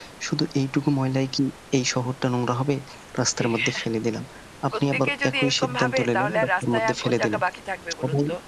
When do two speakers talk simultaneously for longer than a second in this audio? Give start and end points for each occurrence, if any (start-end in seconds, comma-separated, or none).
4.7-7.4